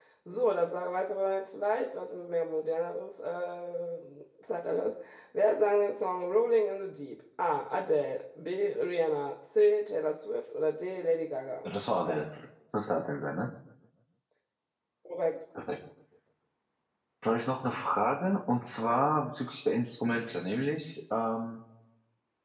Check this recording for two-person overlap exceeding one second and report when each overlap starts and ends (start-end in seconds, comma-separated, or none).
none